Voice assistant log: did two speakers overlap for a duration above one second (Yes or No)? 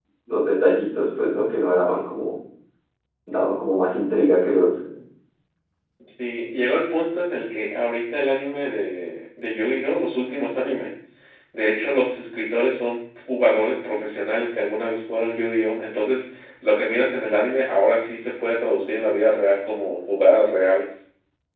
No